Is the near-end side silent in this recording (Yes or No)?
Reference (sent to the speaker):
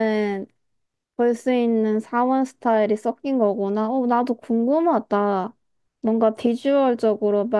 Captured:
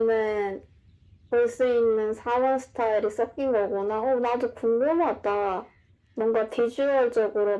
Yes